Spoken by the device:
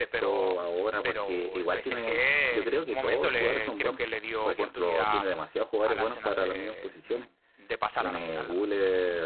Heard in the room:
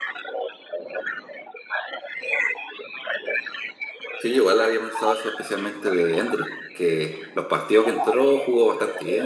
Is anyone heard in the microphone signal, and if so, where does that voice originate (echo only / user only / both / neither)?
both